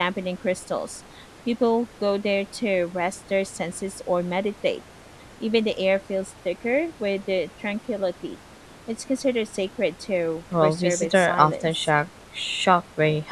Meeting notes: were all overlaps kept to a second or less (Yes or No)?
No